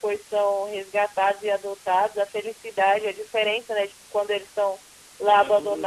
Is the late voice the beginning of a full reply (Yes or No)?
No